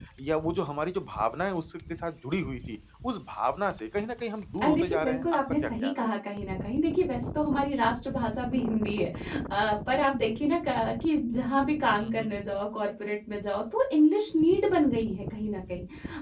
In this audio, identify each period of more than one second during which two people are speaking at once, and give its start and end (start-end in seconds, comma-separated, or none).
4.6-6.2